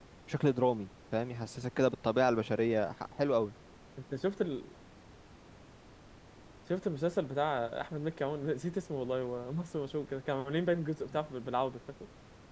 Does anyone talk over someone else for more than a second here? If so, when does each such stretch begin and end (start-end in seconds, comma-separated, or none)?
none